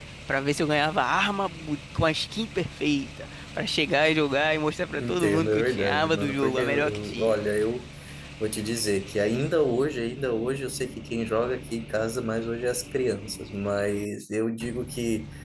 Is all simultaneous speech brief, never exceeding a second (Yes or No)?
No